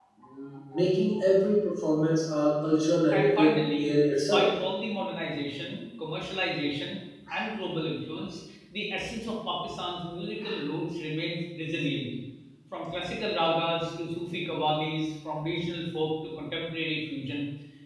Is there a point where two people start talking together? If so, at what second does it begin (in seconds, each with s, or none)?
3.1 s